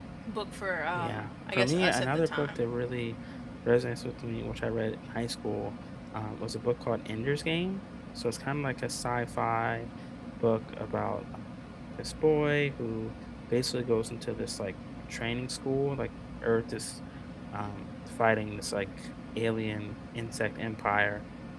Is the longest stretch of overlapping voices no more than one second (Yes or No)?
No